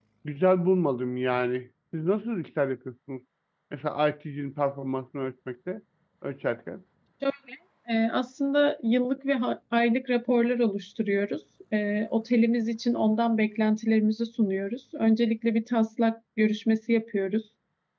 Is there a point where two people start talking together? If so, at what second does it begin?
none

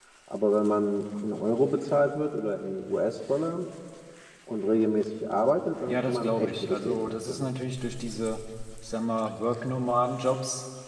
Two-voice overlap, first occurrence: 5.9 s

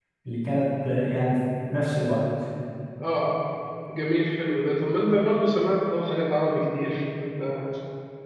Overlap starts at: none

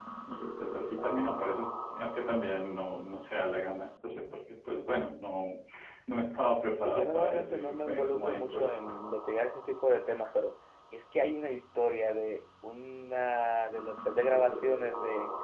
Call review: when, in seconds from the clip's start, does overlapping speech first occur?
6.8 s

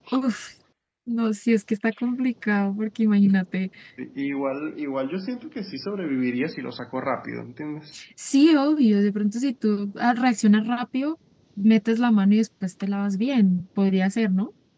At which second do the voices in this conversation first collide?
none

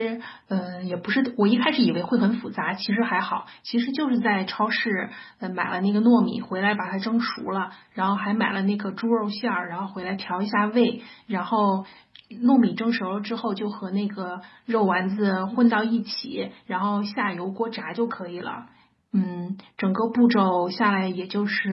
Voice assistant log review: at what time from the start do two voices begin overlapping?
none

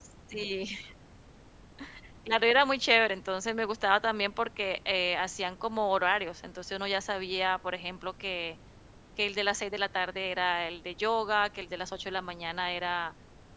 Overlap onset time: none

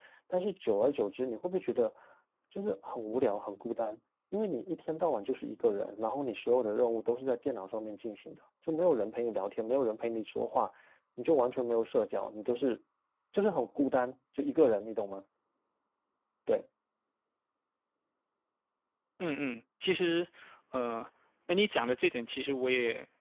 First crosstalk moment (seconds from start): none

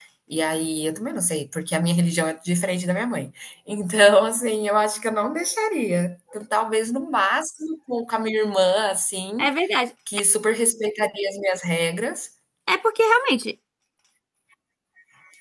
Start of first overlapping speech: none

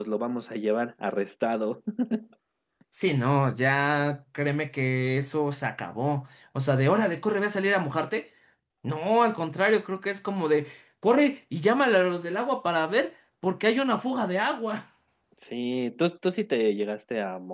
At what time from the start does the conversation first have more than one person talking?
none

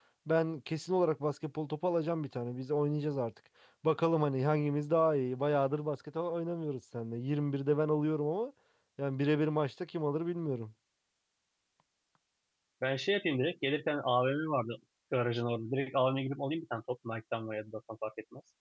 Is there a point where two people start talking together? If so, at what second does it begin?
none

